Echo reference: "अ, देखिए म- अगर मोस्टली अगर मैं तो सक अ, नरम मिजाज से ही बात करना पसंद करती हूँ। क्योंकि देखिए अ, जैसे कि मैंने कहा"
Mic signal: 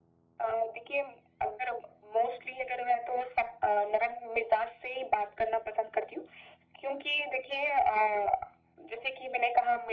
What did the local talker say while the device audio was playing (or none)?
none